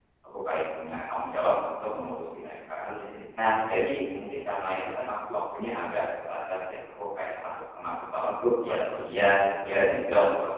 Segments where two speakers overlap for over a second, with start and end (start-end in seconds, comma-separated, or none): 8.6-10.0